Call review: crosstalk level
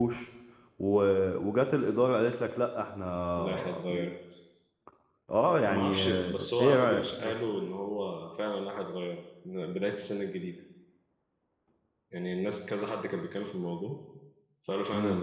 present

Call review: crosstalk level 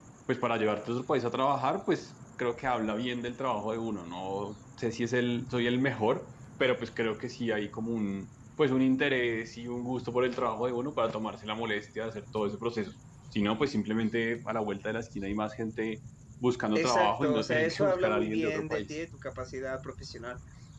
present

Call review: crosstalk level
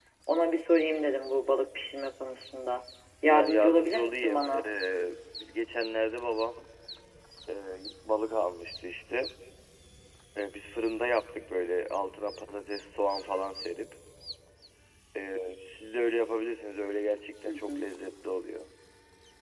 present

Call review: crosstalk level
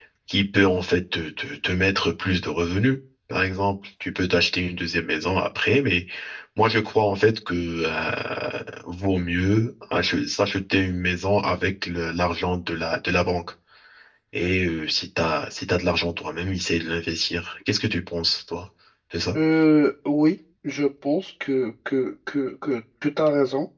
none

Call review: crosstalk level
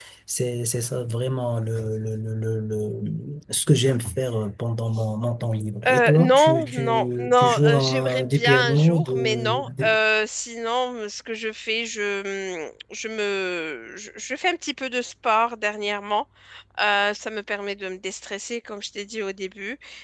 present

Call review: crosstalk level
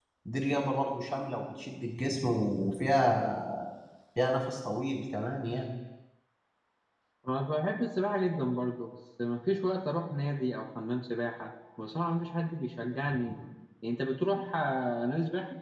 none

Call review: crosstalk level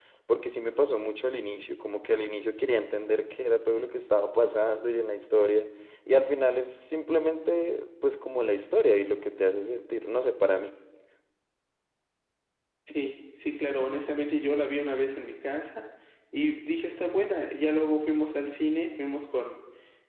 none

